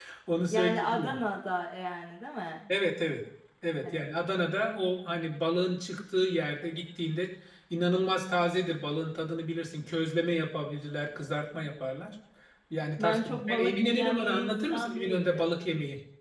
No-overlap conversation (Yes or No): No